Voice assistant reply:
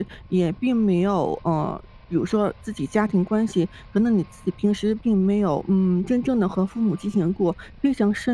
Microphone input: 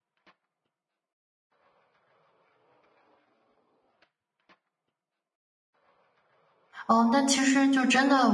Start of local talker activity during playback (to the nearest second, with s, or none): 7 s